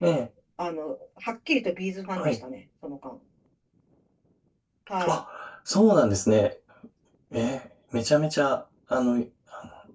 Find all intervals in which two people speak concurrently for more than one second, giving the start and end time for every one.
none

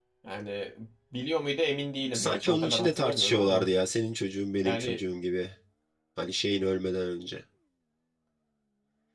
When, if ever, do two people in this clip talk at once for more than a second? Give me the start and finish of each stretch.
2.1-3.6

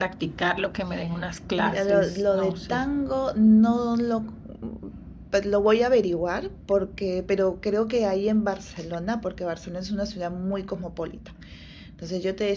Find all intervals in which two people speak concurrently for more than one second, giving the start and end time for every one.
1.6-2.9

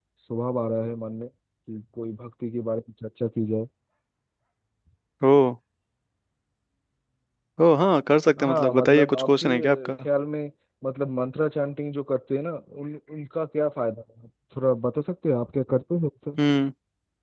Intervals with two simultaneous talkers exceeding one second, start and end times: 8.4-9.9

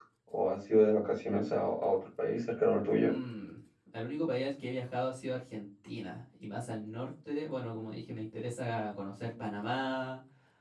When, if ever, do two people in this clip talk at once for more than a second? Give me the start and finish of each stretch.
none

